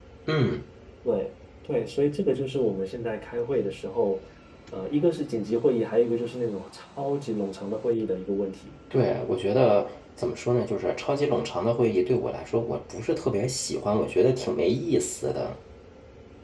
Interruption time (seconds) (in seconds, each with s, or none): none